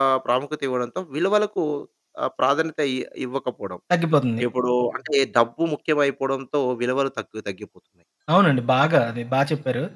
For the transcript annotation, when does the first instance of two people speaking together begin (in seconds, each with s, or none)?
none